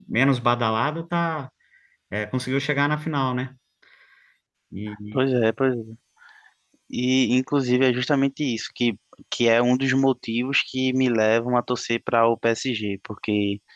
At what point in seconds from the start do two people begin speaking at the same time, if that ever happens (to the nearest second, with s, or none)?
none